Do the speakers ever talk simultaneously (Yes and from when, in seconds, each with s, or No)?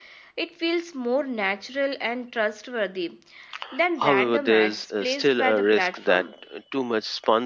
Yes, from 4.0 s